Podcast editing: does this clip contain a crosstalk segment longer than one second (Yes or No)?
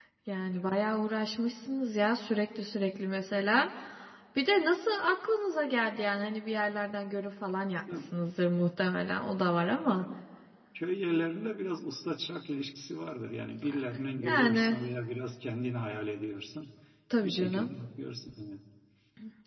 No